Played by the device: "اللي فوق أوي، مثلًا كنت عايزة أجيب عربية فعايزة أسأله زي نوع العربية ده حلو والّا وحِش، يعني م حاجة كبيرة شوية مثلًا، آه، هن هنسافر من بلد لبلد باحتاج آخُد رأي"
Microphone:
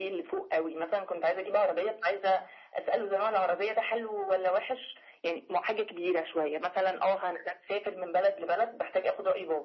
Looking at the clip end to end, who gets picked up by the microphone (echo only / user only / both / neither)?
echo only